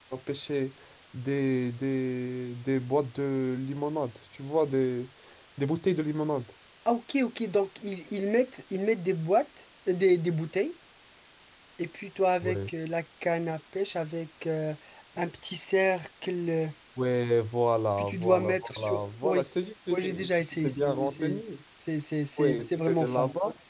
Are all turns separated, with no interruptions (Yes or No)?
No